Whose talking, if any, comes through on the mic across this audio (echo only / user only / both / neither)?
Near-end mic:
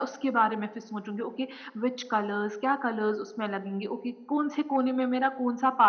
echo only